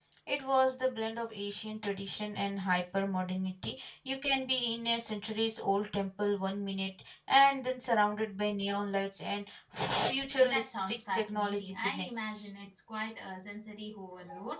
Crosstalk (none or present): present